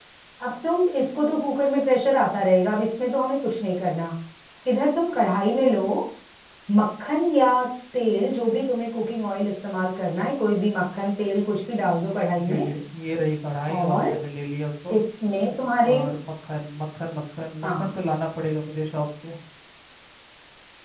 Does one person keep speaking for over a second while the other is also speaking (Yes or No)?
No